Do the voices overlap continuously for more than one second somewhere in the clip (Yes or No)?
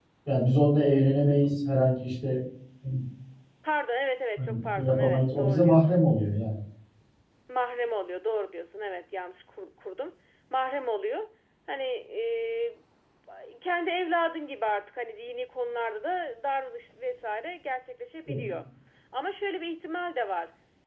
Yes